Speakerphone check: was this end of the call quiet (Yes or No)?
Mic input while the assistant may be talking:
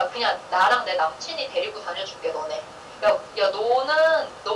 Yes